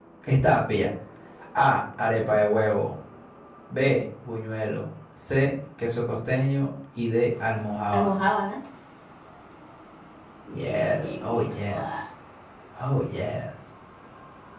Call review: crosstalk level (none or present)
present